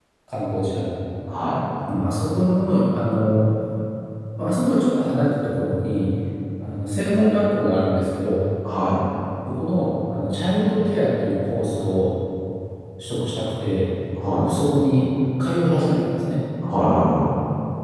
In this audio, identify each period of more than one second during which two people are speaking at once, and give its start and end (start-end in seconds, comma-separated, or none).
none